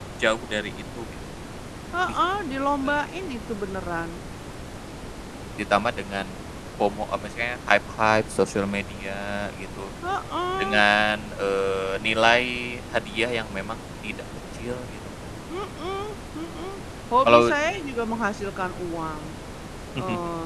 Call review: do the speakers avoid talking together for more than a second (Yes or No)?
Yes